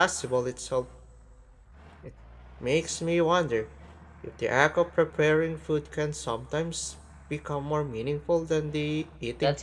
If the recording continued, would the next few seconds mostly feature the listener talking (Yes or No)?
Yes